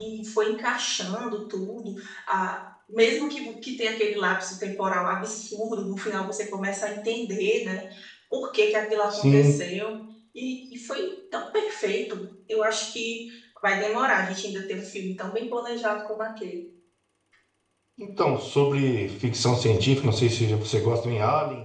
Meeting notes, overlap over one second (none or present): none